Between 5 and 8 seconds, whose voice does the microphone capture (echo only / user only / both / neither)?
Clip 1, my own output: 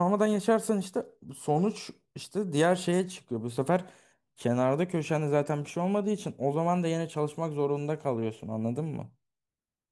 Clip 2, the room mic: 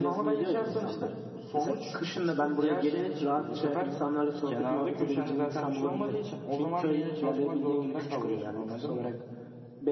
both